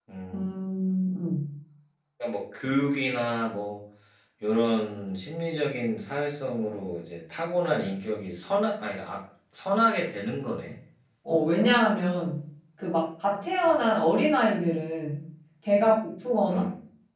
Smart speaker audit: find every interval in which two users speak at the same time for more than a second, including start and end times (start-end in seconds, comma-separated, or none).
none